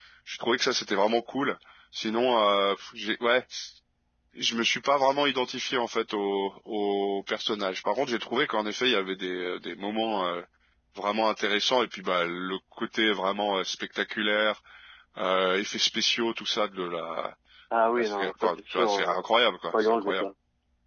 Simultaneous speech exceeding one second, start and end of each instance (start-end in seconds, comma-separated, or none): 18.0-19.2